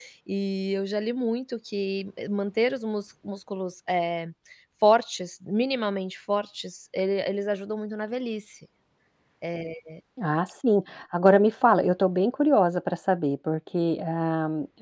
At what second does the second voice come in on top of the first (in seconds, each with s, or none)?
none